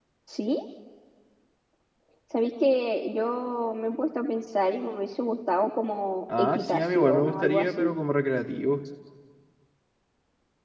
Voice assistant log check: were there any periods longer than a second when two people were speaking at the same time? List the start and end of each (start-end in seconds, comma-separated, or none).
6.4-7.9